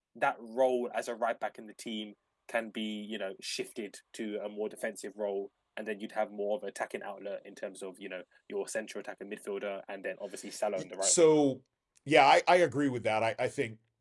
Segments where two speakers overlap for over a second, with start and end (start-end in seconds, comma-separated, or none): none